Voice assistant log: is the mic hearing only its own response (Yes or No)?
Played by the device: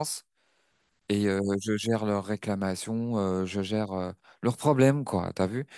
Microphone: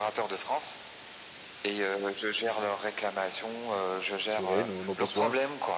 No